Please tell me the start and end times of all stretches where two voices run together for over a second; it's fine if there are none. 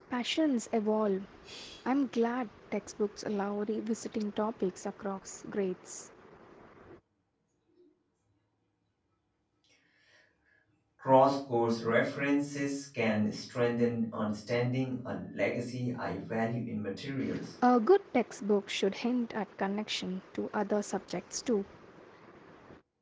none

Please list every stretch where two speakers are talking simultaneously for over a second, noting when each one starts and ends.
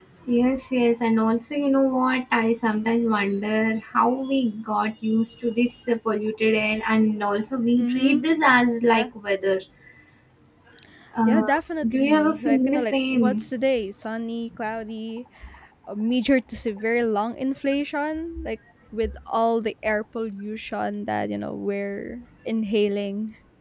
11.9-13.4

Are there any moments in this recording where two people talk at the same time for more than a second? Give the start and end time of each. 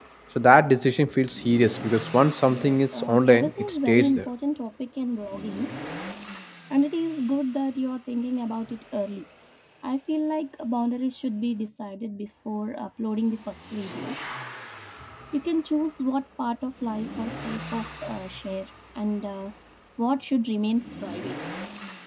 2.5-4.3

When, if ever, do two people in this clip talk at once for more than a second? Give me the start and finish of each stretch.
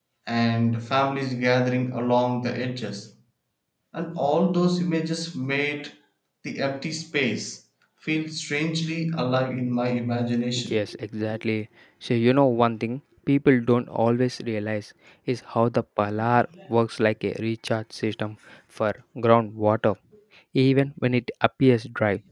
none

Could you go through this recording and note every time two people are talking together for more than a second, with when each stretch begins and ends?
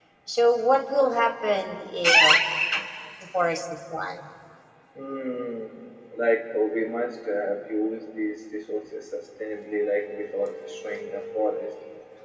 none

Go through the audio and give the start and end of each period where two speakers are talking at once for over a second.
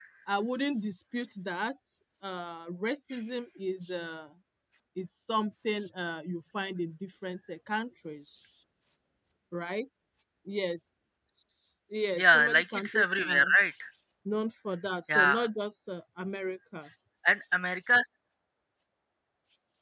12.1-13.6

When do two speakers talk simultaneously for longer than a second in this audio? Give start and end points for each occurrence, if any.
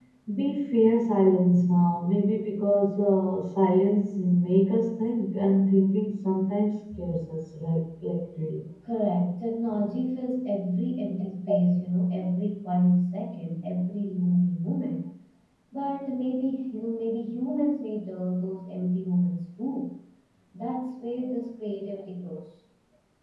none

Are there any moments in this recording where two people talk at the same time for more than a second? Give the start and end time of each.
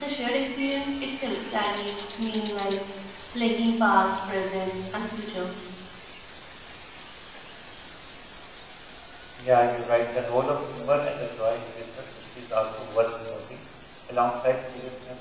none

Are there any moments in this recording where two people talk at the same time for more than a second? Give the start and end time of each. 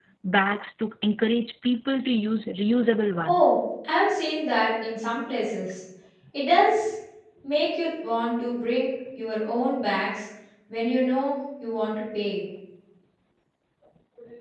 none

